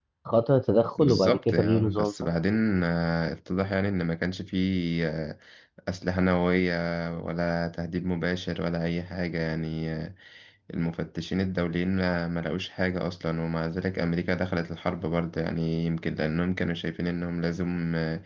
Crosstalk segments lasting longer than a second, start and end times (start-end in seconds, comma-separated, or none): 1.0-2.3